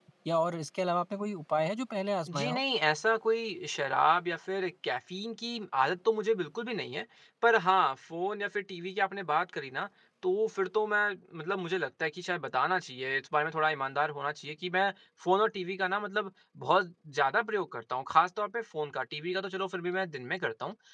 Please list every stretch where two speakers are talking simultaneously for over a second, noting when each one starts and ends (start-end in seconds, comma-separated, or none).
none